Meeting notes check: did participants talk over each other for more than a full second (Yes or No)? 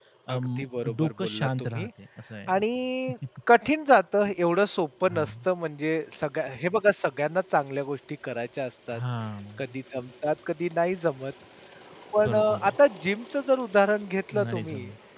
Yes